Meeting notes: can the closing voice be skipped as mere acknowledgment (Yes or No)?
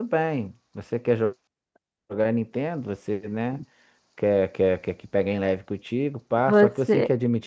Yes